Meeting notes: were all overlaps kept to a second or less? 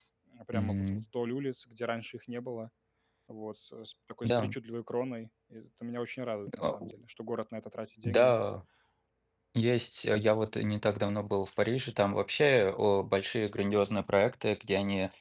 Yes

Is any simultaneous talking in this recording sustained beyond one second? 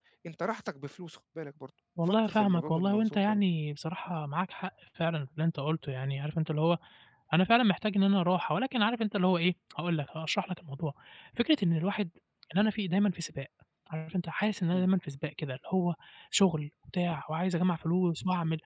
Yes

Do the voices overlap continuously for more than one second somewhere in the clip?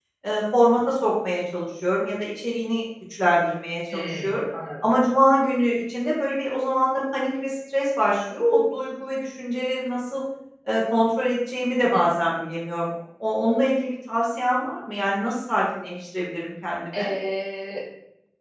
No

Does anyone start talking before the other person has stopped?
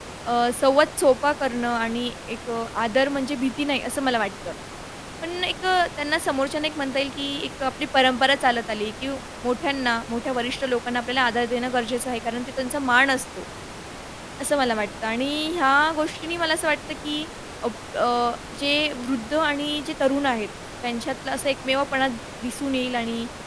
No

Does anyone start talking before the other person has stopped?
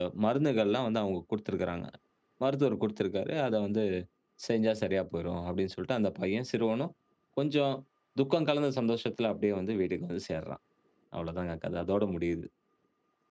No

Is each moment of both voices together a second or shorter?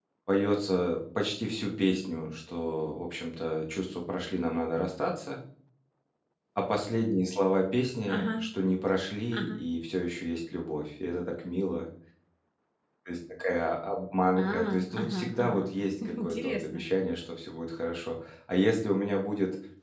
No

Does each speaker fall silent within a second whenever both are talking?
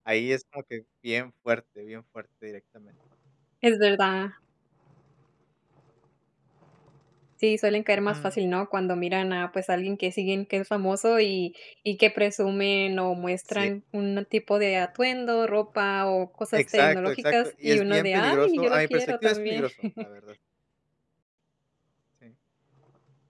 No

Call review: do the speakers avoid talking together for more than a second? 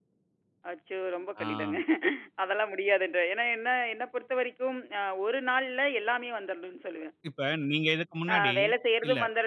Yes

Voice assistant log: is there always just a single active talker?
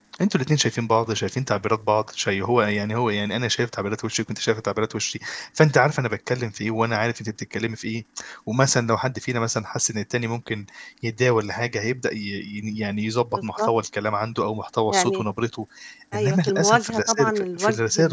No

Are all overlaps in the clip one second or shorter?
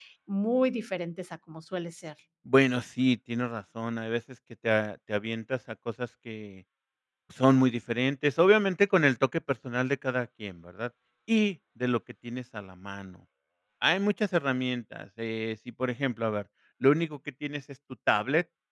Yes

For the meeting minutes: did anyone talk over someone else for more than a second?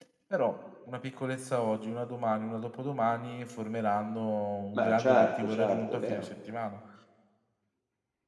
Yes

